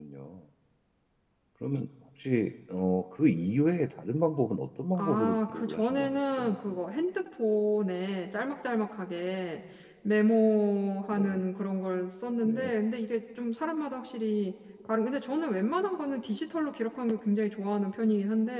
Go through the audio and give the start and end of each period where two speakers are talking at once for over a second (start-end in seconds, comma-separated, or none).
5.0-6.8